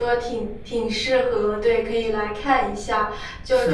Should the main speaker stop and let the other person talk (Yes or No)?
No